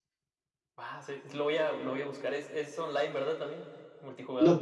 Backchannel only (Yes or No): No